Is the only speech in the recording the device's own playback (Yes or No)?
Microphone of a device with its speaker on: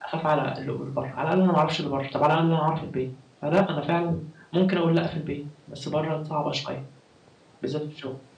No